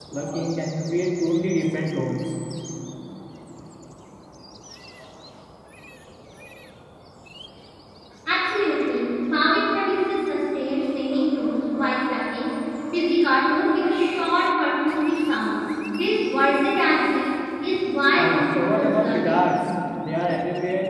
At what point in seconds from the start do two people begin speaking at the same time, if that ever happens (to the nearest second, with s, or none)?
18 s